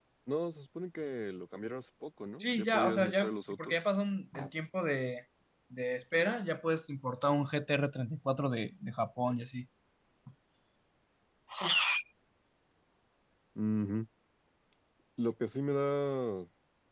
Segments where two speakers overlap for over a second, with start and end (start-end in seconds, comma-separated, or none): 2.4-3.8